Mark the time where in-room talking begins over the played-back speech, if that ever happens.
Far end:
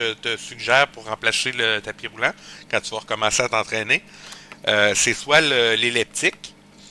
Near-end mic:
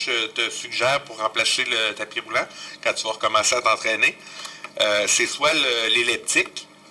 none

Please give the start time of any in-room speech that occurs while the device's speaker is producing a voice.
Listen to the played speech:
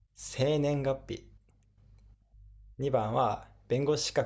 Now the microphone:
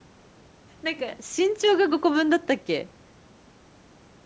0.8 s

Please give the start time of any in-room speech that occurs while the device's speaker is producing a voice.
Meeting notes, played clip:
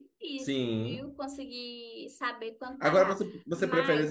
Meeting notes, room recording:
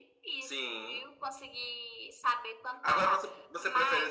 none

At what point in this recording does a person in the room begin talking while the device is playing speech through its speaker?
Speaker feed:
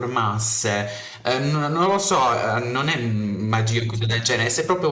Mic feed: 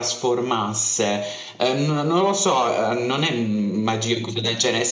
none

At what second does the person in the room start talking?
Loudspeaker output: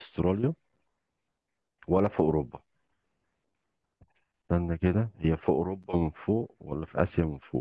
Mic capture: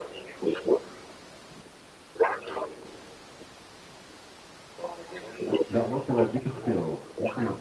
5.7 s

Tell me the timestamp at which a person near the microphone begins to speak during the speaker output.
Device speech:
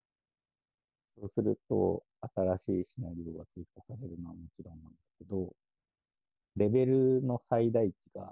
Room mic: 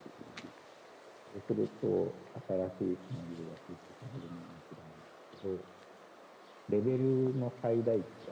none

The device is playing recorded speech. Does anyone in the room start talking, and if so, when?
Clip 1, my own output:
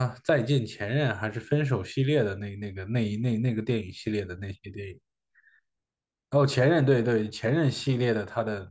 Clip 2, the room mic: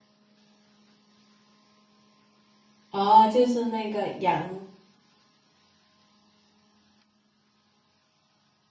2.9 s

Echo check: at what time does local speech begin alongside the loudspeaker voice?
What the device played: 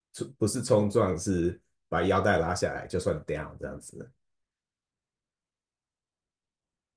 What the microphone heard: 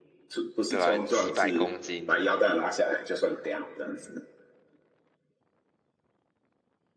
0.7 s

